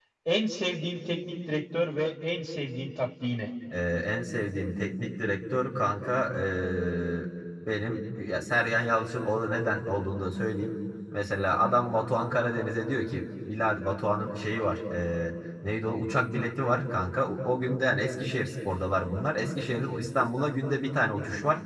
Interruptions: none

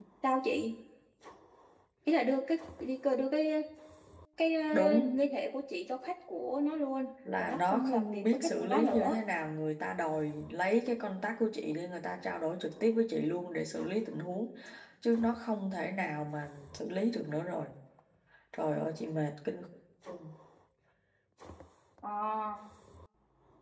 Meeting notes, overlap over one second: present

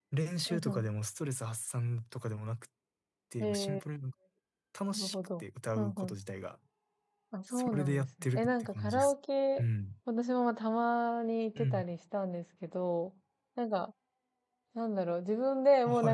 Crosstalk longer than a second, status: present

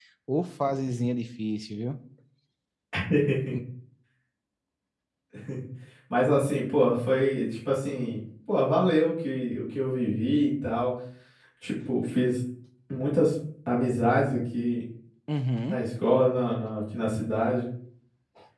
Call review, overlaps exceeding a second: none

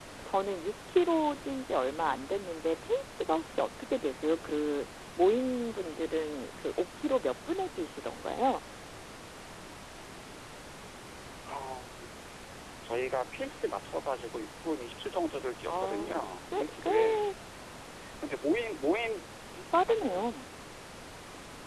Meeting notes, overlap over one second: present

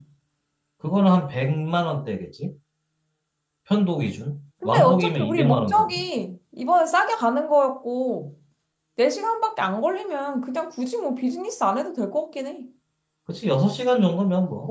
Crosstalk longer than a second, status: present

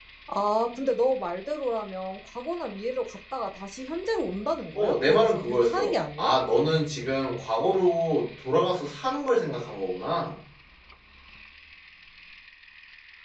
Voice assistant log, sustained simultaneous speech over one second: present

